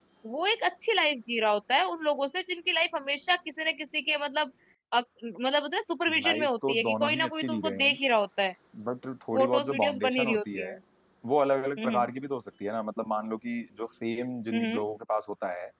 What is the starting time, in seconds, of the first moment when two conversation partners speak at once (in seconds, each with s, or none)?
6.1 s